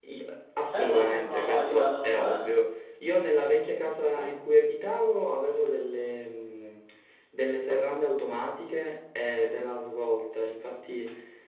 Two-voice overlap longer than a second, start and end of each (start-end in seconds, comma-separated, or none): 0.7-2.5